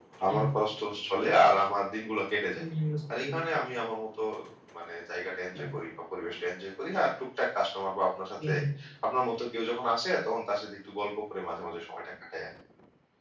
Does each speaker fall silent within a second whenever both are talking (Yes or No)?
Yes